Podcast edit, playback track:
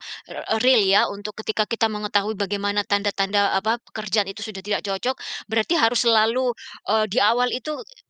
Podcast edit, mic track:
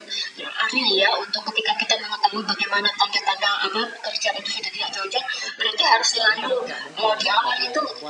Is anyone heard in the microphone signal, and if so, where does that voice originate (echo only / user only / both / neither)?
both